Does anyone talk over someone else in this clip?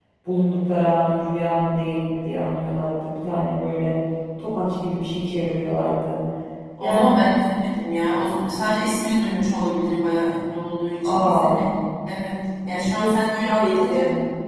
Yes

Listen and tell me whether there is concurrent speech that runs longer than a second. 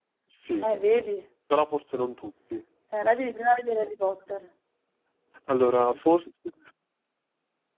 No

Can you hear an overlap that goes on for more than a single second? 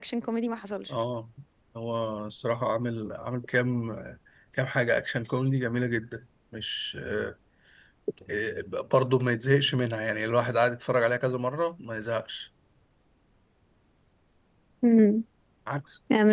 No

